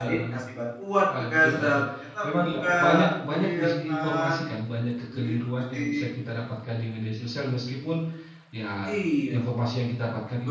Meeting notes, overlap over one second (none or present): present